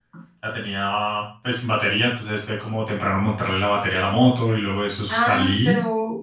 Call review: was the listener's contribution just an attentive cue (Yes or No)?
No